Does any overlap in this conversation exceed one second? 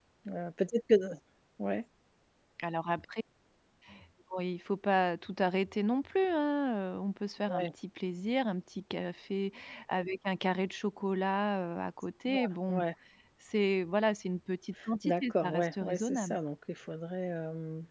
Yes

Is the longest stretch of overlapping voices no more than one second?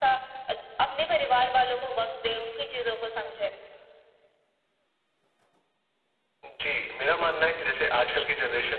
Yes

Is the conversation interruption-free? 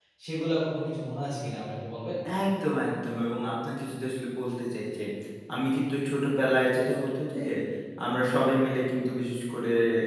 Yes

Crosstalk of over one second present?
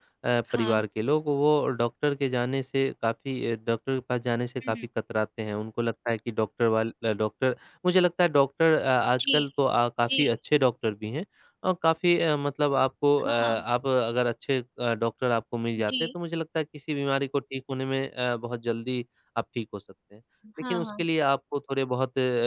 No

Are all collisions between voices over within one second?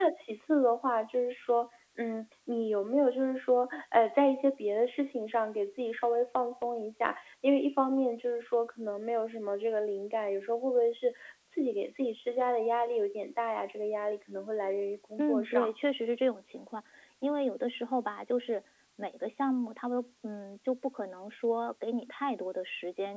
Yes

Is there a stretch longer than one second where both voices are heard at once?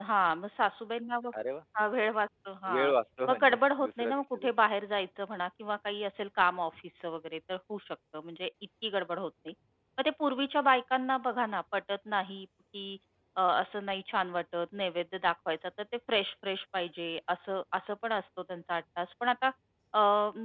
Yes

